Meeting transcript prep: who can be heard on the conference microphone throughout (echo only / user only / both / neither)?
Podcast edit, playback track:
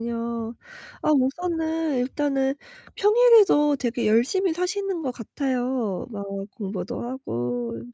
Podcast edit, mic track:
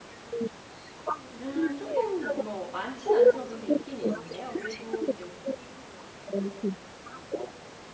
both